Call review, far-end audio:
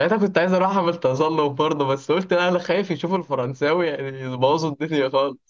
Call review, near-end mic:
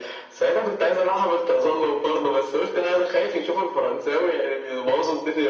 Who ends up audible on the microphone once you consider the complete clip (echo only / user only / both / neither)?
echo only